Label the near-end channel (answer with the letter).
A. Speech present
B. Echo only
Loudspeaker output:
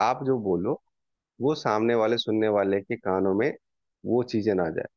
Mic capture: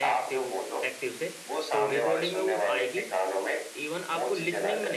A